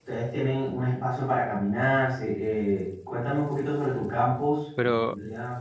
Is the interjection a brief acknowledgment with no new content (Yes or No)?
No